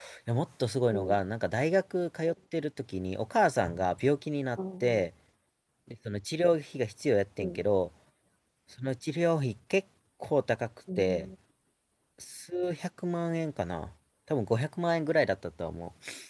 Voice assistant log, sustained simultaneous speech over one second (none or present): none